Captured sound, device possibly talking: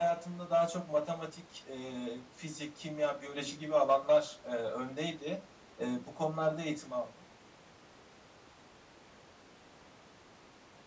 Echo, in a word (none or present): none